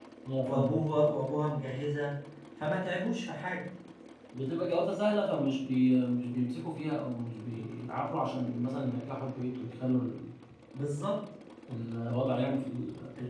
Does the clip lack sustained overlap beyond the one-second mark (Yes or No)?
Yes